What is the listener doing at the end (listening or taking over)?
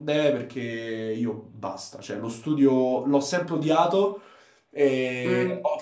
listening